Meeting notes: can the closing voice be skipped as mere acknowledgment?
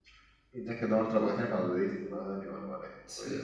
No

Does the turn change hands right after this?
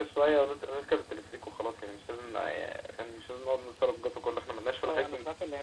Yes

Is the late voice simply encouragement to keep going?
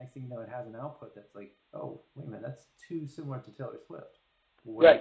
No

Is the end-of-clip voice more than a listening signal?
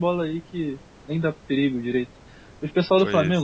No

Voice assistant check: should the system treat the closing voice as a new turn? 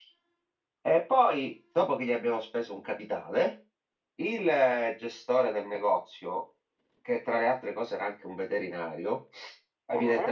No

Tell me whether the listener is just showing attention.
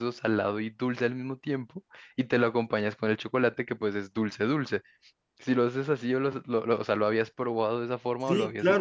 No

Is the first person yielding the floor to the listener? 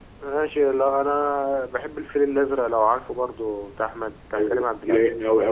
Yes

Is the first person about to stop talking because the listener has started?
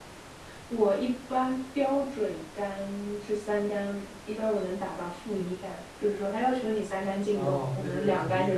Yes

